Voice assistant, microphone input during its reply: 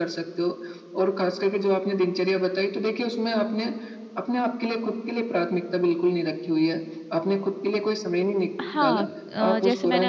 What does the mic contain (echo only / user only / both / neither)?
both